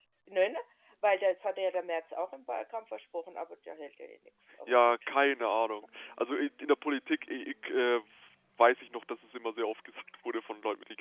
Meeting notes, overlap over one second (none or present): none